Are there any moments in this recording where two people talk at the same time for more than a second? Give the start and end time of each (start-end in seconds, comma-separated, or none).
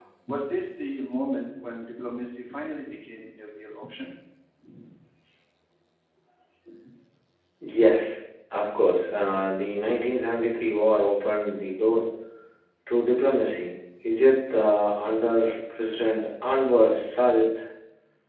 none